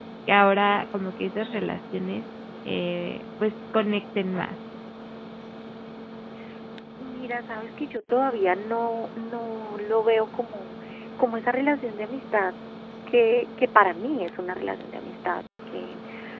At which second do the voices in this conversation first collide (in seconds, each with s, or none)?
none